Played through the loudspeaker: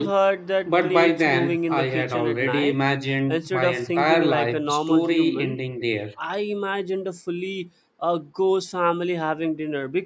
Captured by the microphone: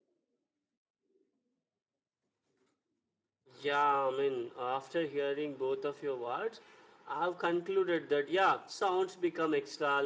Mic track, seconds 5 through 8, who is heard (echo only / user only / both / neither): user only